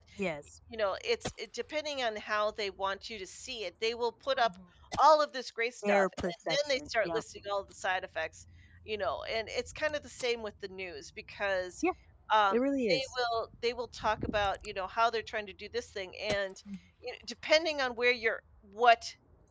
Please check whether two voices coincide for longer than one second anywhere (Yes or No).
Yes